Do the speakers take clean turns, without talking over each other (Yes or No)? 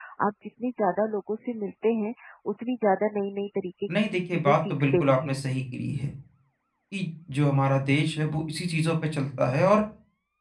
No